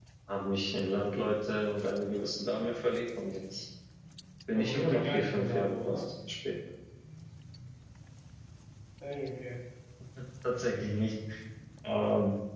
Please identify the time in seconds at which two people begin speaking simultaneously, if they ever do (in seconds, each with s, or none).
4.5 s